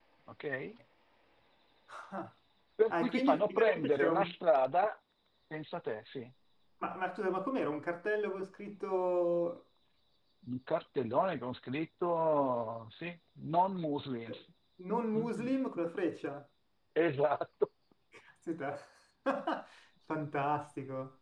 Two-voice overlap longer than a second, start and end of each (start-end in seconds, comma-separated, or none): 2.9-4.3